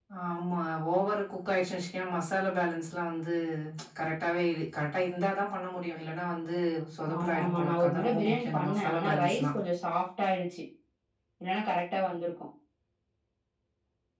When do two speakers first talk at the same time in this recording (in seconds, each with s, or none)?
7.2 s